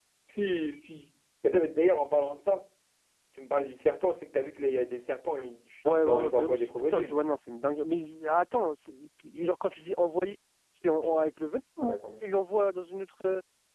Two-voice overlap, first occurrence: 5.9 s

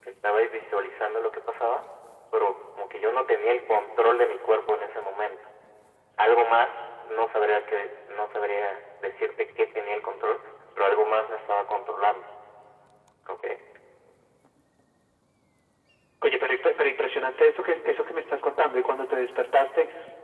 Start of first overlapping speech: none

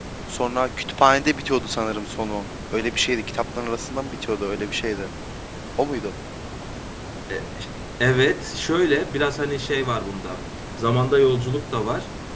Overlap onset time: none

